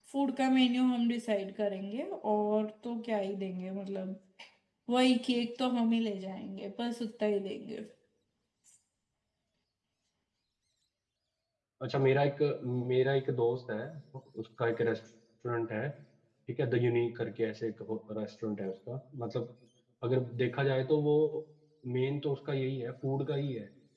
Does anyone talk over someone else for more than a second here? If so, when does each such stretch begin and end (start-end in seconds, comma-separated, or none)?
none